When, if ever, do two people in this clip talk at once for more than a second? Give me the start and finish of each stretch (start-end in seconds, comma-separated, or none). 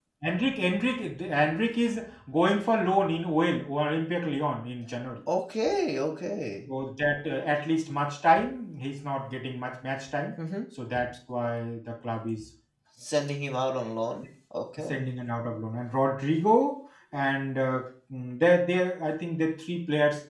none